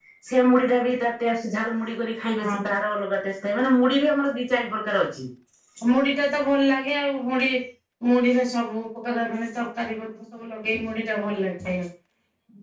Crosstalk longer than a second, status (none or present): none